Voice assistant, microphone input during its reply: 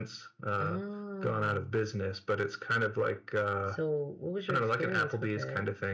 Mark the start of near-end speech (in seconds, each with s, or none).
none